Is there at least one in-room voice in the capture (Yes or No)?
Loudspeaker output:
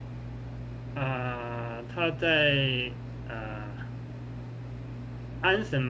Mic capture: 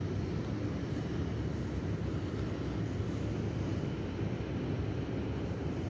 No